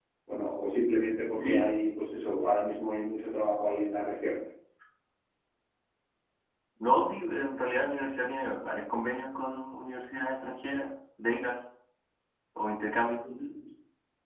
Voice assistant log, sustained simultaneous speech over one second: none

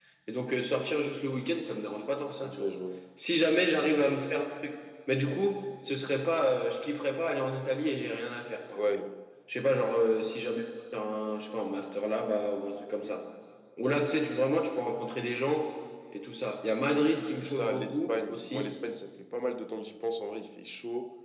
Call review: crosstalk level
present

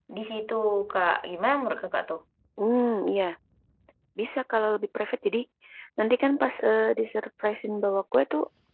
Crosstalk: none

